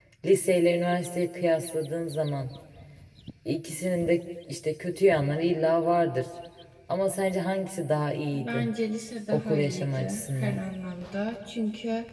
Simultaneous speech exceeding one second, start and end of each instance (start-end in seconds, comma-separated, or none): 9.3-10.6